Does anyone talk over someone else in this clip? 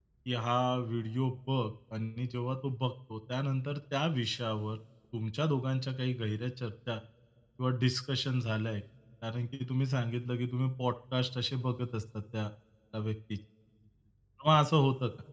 No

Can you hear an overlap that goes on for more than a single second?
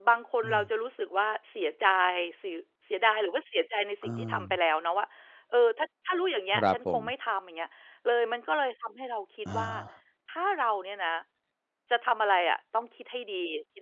No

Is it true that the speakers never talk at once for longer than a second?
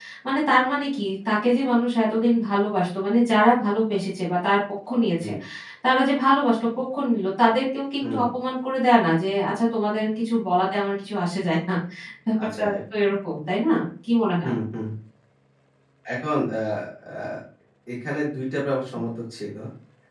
Yes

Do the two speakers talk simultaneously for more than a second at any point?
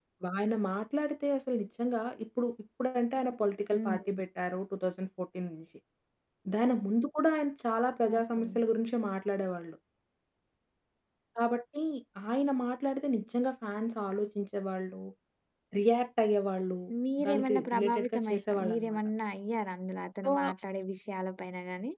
Yes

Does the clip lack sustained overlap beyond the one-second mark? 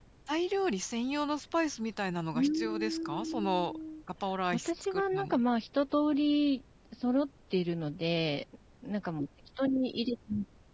No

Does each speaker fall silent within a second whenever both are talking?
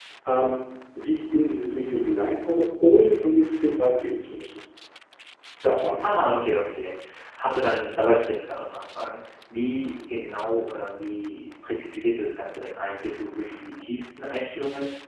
Yes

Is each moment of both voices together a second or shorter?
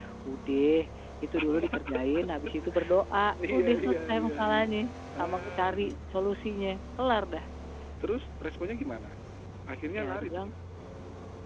No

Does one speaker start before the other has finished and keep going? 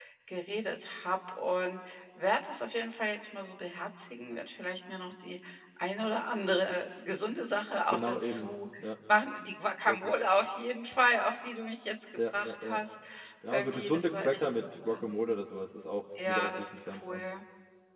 Yes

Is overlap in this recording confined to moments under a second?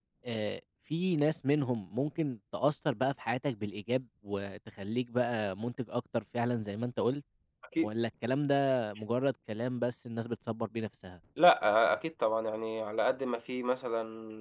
Yes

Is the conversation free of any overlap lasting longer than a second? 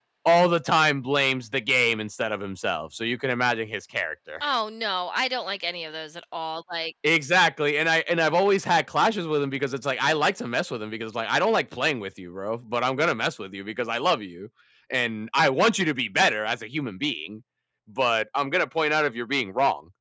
Yes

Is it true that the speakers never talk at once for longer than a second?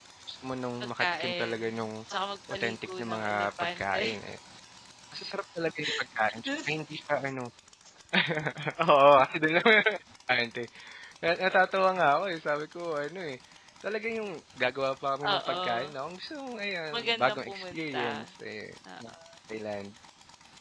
No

